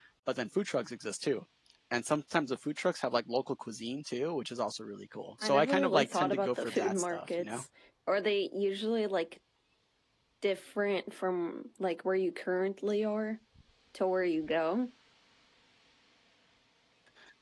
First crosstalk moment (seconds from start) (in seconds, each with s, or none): 5.4 s